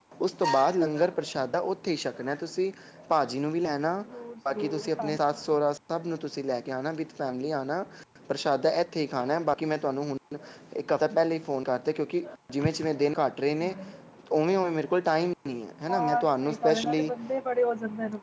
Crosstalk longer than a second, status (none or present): present